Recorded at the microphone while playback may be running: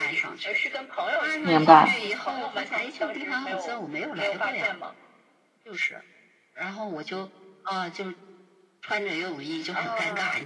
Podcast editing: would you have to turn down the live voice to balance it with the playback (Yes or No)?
Yes